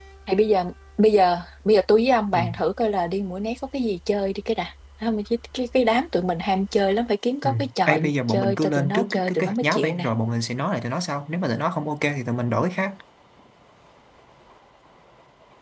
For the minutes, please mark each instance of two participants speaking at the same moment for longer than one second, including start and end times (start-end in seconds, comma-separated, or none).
7.4-10.1